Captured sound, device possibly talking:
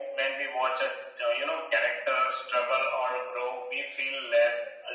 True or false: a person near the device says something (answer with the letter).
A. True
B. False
B